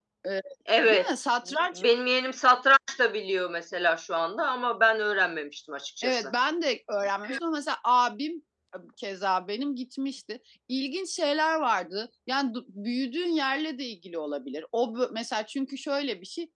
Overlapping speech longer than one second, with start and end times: none

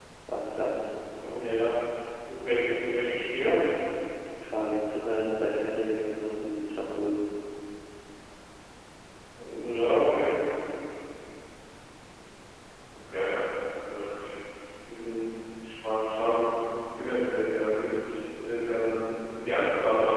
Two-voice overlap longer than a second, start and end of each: none

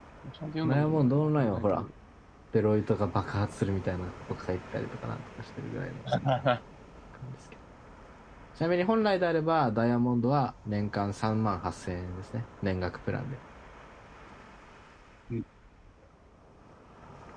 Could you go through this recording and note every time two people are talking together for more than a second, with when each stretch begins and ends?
0.7-1.9

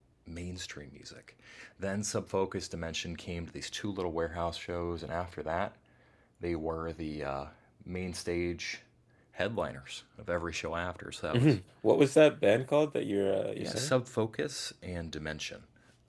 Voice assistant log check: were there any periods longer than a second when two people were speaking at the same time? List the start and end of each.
none

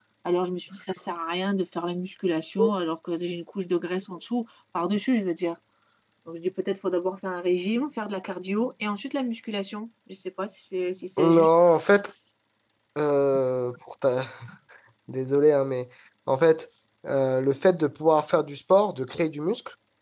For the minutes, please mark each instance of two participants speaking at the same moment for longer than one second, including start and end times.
none

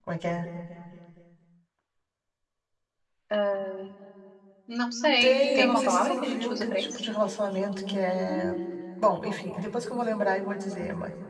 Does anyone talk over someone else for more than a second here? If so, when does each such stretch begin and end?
5.2-6.9

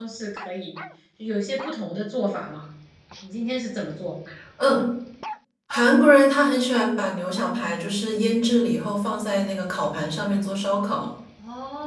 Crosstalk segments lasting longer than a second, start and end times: none

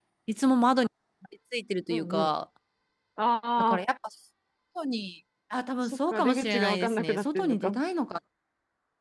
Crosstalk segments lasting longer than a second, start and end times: 5.8-7.8

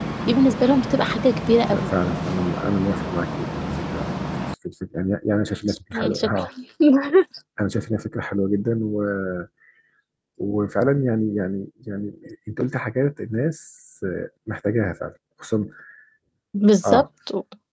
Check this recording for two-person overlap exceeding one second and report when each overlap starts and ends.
none

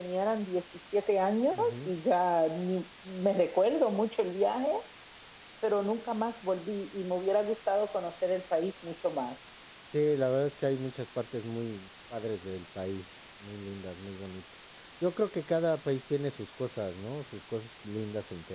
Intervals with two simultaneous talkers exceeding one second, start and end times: none

